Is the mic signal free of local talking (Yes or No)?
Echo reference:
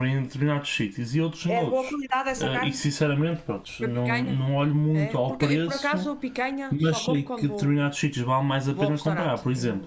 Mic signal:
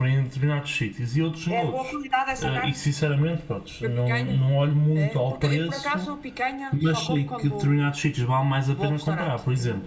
Yes